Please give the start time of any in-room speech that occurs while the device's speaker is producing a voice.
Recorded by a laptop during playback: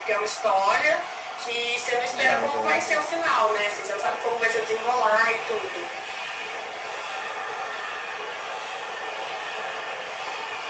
2.1 s

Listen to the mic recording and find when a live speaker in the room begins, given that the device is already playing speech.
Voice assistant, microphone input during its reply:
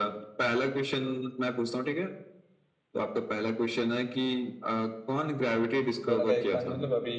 6.1 s

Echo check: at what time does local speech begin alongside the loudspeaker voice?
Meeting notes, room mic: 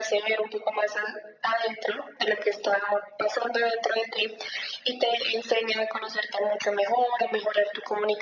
none

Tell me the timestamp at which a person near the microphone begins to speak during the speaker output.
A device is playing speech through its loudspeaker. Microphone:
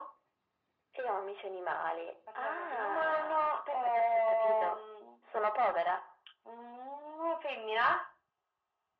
none

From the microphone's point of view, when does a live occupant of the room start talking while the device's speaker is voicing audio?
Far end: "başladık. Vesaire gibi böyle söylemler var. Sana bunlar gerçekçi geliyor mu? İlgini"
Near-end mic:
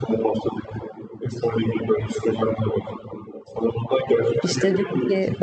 4.4 s

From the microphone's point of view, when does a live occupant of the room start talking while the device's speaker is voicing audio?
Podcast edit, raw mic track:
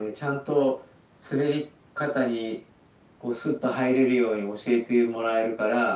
none

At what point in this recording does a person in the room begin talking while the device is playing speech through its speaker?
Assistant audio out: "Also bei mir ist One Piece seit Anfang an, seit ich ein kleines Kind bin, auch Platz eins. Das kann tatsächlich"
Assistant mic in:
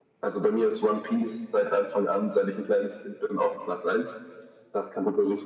none

